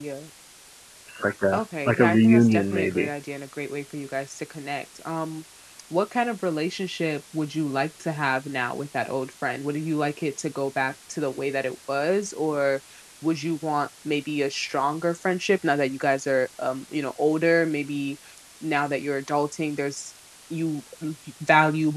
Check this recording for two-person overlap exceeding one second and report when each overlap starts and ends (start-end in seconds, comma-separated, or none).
1.5-3.1